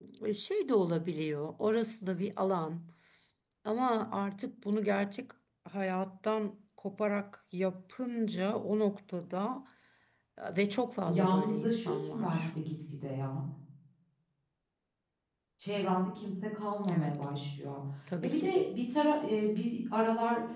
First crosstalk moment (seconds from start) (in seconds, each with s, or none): 11.1 s